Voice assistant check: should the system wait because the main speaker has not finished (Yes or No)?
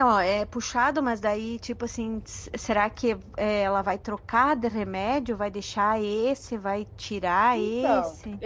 No